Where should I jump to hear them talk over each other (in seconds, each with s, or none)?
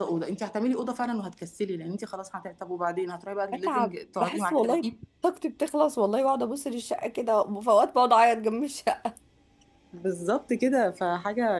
3.5 s